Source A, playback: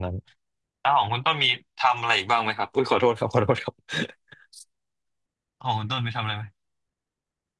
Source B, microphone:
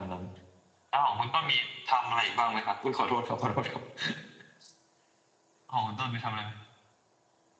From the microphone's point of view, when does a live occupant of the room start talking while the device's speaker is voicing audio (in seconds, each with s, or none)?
none